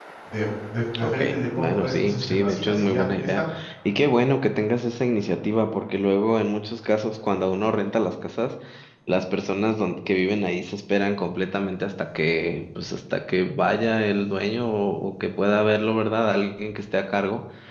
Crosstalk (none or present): present